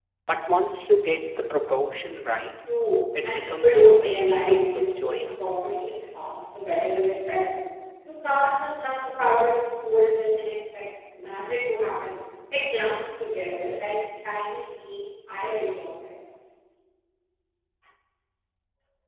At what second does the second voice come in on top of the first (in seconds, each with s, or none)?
3.2 s